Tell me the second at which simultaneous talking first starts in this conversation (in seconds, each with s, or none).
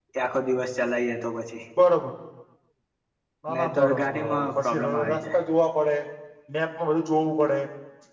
3.5 s